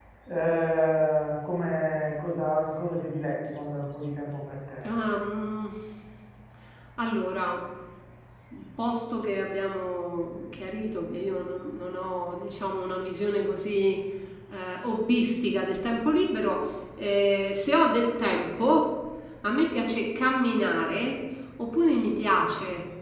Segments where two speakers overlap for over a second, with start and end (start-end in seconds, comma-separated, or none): none